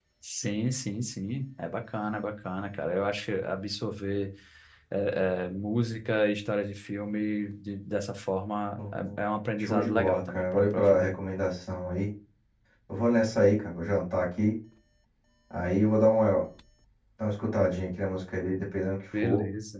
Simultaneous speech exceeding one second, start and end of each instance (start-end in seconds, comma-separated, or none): 9.6-11.1